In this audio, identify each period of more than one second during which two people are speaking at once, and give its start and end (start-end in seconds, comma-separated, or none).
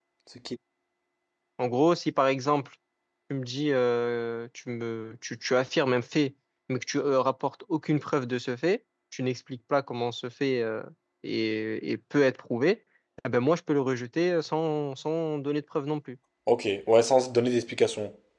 none